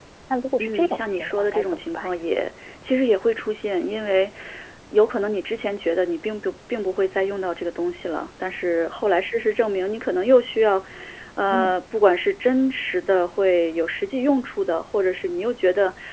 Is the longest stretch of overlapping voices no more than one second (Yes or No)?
No